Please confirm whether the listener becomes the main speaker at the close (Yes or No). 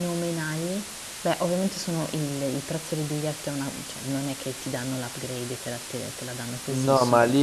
Yes